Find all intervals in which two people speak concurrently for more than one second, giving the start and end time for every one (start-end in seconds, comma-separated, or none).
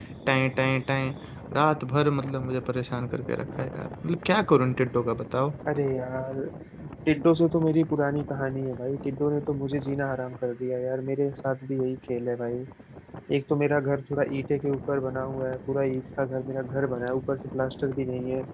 none